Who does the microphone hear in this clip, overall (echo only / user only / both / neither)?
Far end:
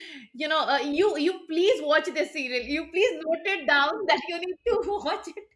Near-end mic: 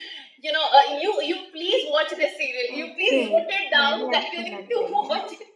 both